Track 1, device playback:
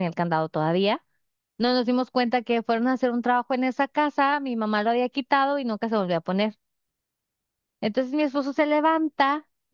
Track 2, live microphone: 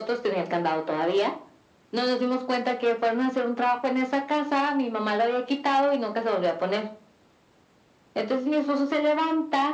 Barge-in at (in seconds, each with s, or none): none